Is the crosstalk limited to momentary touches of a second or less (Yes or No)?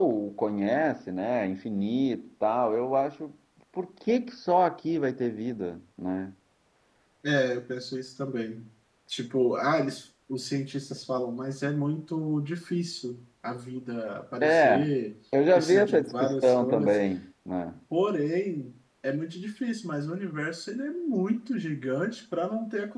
No